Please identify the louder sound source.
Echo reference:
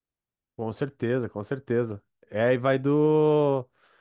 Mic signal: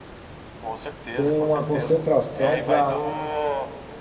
user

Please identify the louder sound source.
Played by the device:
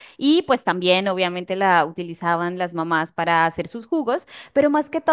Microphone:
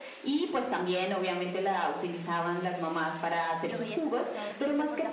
echo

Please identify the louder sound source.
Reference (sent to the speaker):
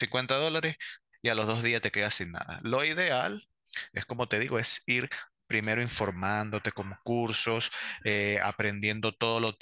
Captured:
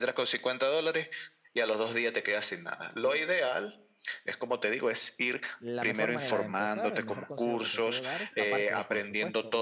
echo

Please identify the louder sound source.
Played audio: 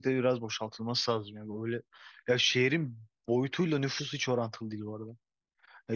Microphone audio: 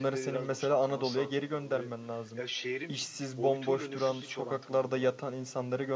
user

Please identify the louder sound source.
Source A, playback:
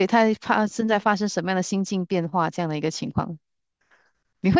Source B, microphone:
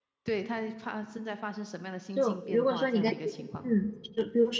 user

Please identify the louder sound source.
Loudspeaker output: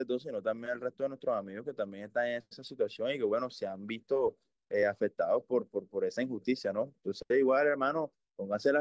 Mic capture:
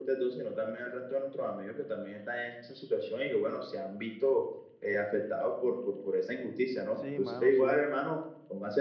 echo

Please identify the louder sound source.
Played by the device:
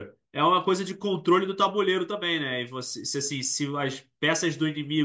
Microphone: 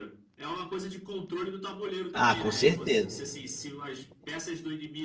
user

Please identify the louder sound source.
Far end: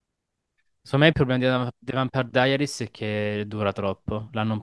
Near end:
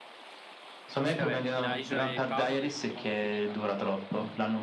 echo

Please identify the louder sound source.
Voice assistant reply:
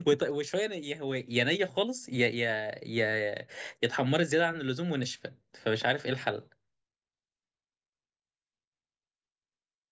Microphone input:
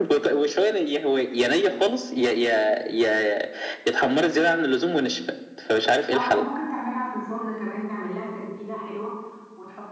echo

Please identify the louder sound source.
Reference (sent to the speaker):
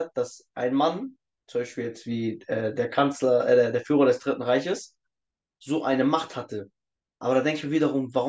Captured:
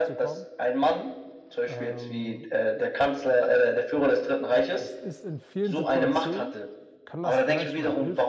echo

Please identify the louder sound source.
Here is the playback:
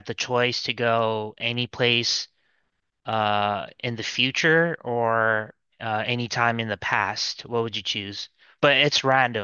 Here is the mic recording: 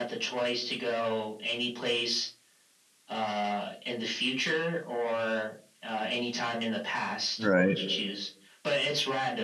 user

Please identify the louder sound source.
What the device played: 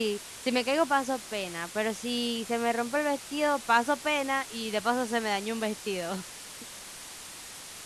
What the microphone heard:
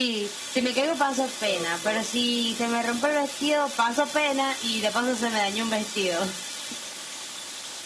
echo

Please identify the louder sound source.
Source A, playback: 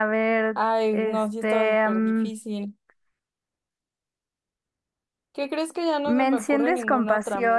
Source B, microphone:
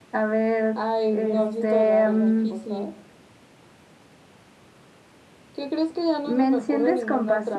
echo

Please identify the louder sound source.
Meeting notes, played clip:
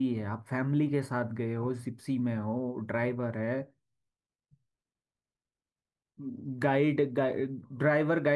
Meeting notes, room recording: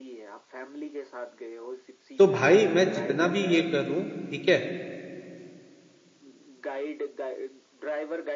user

